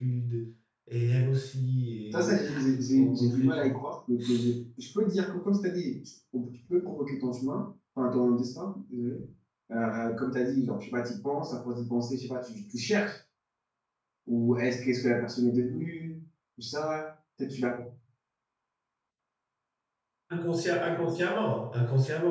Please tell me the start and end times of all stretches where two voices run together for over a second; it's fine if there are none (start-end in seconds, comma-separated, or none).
2.4-3.8